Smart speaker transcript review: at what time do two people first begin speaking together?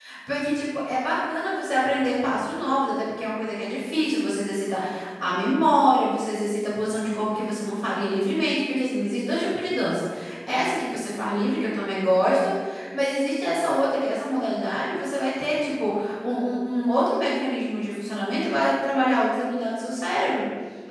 none

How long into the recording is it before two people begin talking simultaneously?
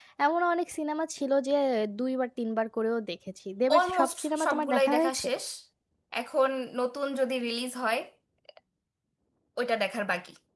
3.7 s

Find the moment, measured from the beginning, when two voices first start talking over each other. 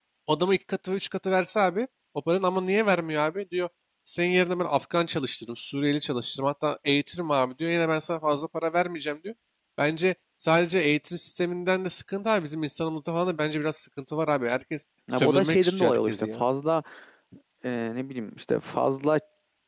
15.1 s

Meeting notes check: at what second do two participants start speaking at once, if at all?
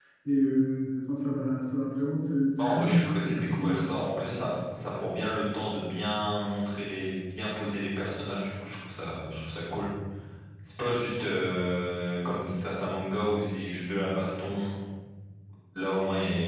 2.6 s

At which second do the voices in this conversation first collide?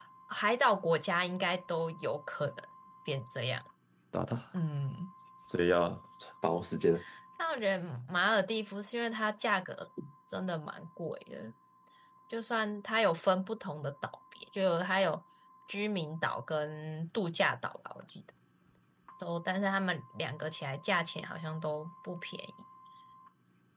none

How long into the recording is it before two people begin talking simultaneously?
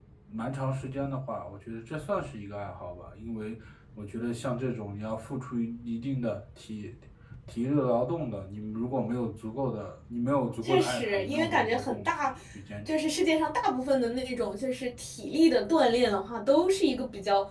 10.6 s

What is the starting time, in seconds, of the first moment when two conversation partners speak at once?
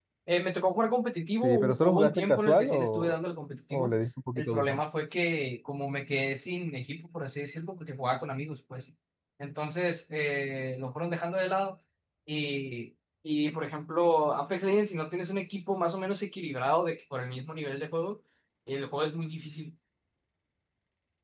1.4 s

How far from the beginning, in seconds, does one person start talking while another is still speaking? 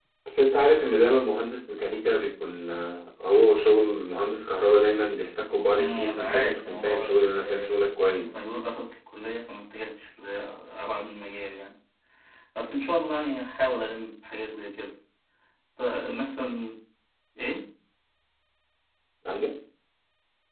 5.7 s

